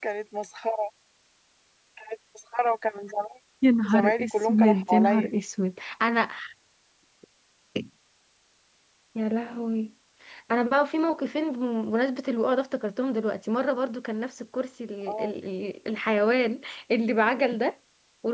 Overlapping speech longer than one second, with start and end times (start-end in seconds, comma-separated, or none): 3.9-5.3